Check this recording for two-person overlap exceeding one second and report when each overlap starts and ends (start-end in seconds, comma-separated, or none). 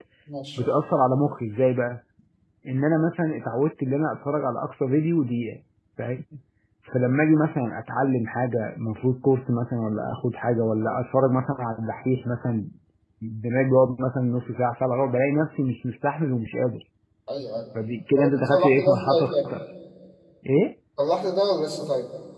18.2-19.5